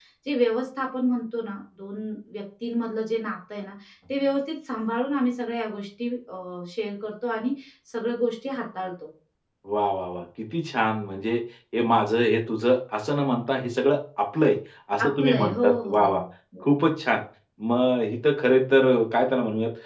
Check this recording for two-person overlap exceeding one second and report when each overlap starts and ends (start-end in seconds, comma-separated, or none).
15.0-16.2